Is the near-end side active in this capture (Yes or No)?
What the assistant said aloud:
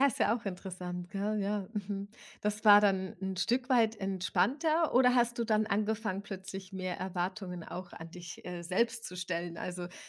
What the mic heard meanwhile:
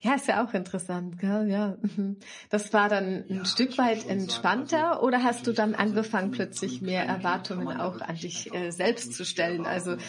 Yes